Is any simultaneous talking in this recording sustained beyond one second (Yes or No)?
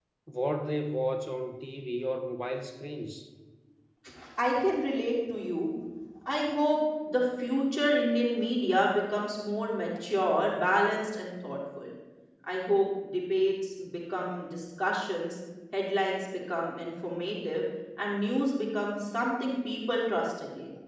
No